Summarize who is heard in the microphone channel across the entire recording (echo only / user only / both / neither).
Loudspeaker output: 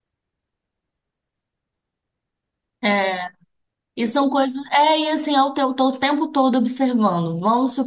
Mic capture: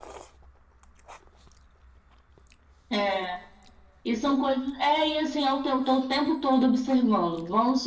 echo only